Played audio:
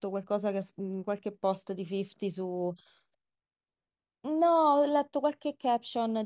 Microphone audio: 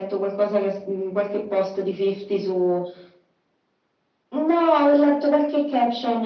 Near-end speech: none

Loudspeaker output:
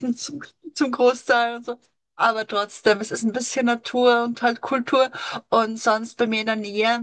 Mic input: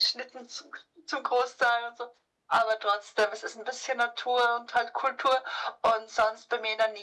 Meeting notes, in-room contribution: none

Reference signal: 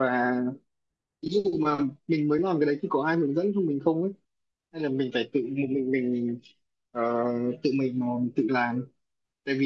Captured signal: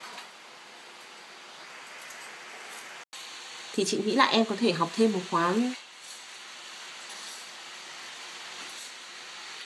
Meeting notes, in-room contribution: present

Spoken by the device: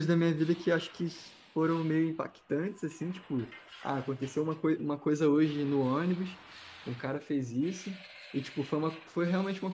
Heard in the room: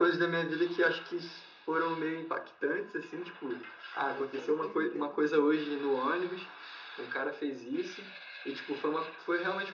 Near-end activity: present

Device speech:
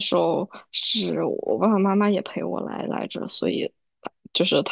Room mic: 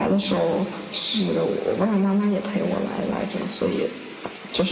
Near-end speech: none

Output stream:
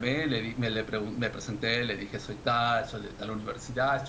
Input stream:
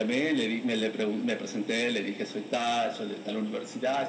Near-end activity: none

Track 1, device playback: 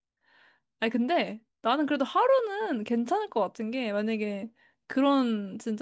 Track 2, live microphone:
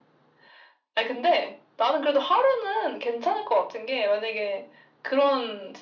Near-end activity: none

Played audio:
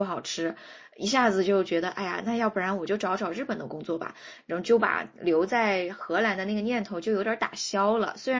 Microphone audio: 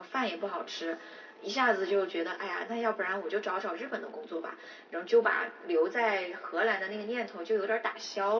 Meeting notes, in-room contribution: none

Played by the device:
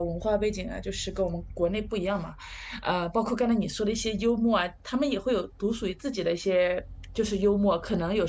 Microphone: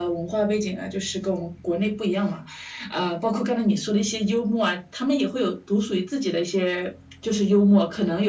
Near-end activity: none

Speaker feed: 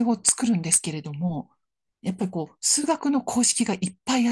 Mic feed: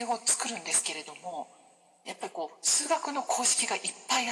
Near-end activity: none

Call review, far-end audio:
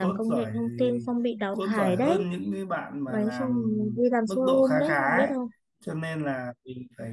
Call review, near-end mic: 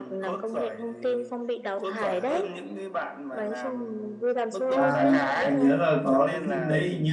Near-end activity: present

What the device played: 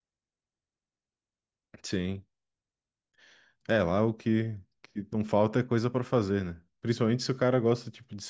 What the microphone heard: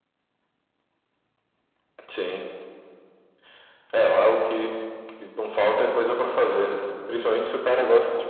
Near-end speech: none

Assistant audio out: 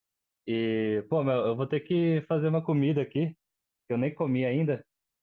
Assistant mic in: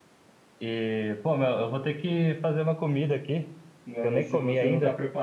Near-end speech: present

